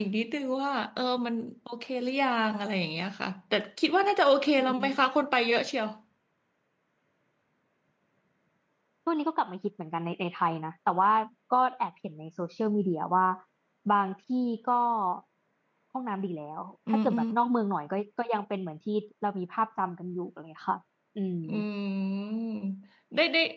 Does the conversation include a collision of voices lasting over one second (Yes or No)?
No